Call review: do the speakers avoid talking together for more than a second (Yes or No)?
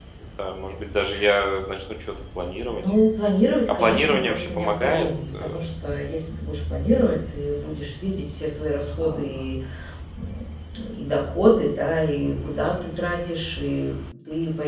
No